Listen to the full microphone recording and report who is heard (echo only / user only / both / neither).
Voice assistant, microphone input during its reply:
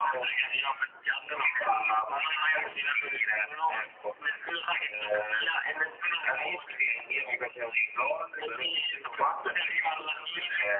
echo only